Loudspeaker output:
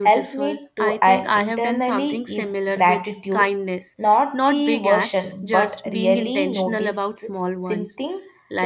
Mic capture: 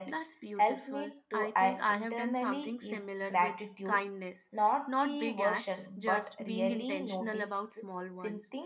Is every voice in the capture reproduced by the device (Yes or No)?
Yes